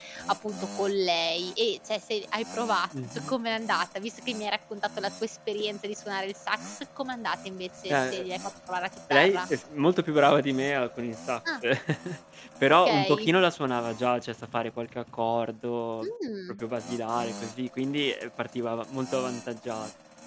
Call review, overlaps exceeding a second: none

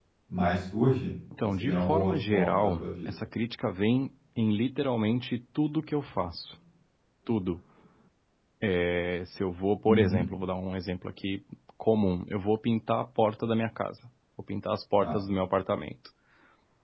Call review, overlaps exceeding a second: present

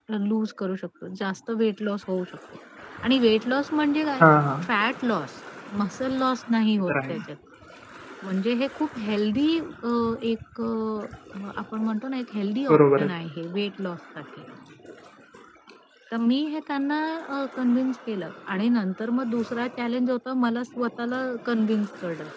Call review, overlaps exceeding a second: none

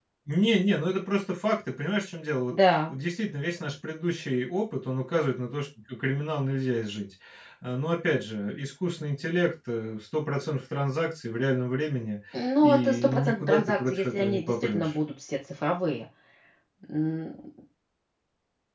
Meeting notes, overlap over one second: present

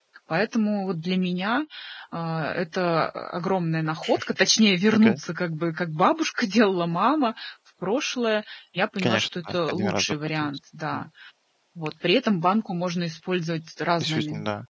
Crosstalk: present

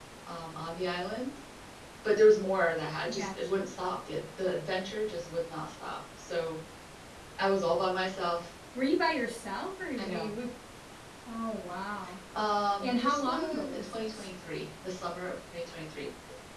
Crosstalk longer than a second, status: present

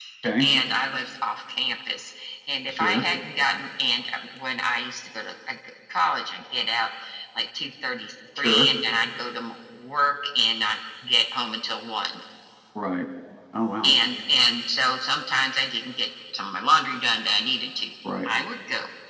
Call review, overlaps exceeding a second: none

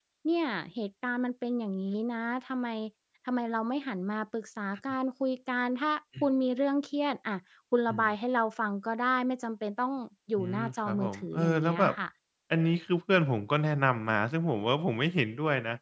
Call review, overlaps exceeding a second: present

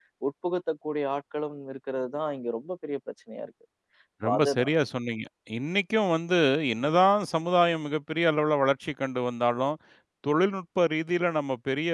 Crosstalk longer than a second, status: none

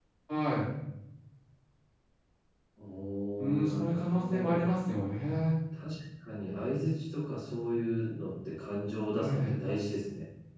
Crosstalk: present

